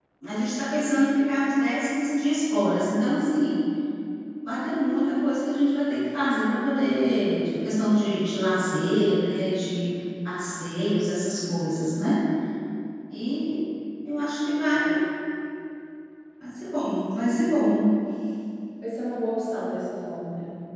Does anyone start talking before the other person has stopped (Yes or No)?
No